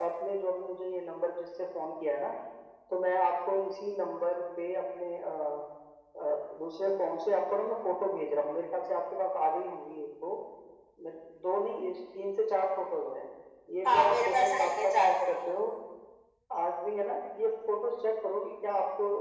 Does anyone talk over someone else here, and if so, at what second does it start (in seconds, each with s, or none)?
13.8 s